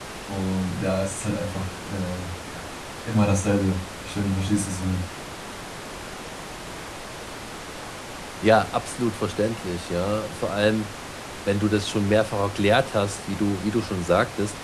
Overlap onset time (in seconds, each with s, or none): none